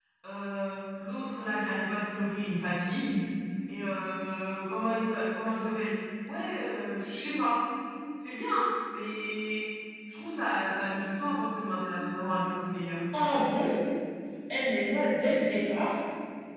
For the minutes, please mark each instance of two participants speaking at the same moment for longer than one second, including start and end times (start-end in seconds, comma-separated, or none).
none